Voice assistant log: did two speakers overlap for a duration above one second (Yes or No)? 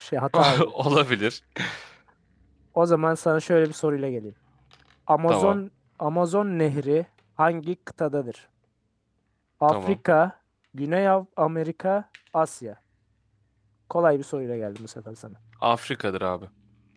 No